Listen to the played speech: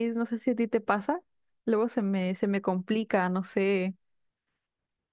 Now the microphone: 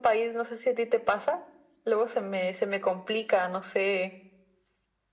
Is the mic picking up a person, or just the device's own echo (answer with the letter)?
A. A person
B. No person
B